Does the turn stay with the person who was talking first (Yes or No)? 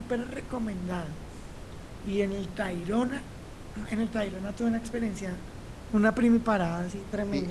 No